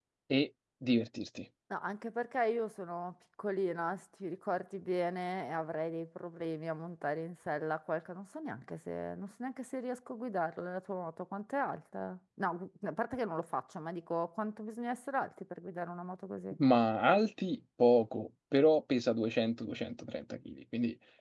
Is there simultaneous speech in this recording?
No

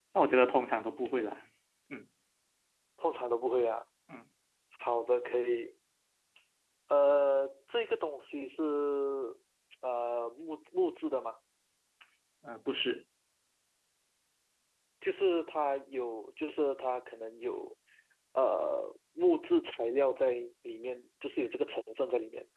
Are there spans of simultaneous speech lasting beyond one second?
No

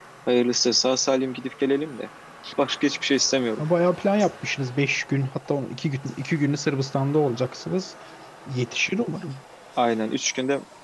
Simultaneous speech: No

